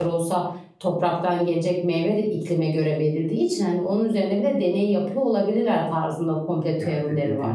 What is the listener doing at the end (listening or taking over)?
taking over